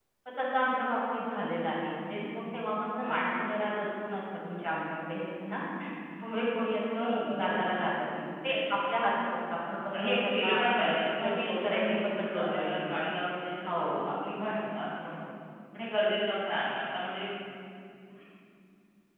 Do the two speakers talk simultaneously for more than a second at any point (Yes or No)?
Yes